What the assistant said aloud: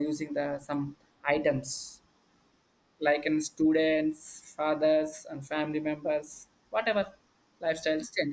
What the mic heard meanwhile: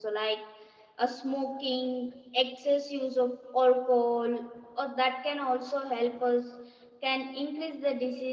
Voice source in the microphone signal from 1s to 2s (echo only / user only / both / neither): user only